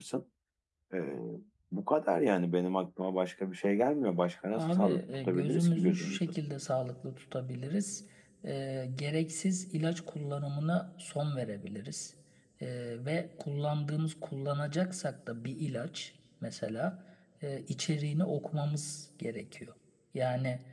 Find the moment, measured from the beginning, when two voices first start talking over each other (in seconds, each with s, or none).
4.5 s